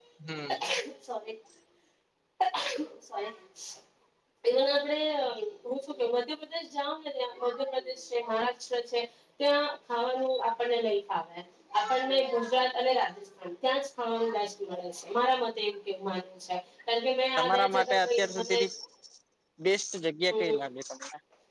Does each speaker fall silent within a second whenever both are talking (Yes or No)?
No